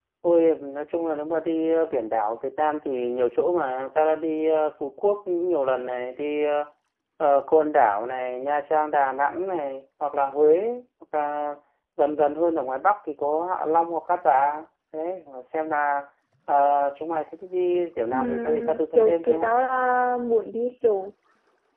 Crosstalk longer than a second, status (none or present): present